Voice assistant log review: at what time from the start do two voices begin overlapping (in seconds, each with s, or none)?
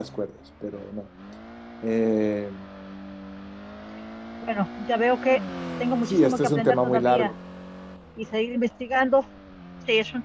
6.1 s